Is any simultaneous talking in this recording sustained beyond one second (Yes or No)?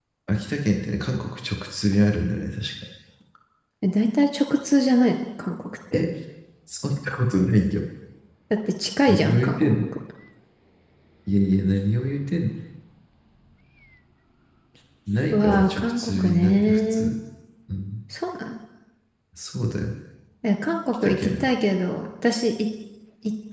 Yes